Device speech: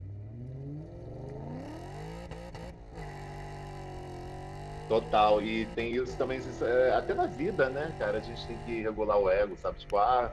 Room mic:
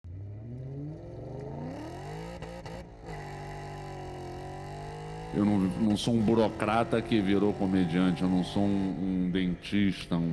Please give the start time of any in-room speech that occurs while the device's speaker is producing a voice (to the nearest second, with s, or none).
5 s